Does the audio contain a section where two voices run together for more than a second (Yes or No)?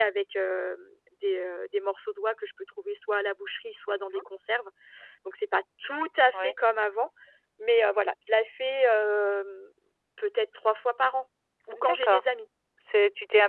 No